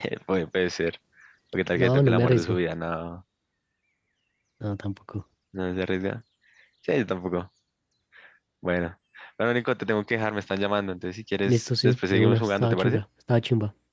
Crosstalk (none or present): present